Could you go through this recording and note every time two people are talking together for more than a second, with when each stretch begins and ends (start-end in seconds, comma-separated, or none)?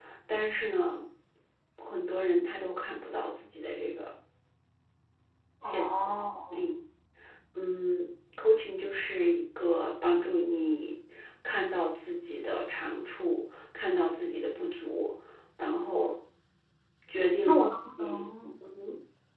none